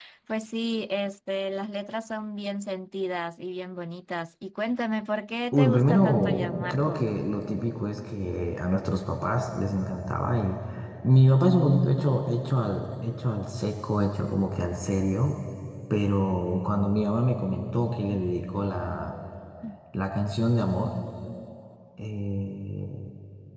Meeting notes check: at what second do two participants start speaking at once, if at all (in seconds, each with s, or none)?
5.5 s